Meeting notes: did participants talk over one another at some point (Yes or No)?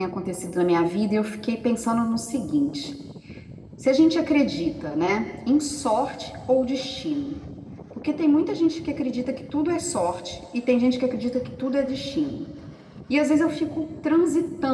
No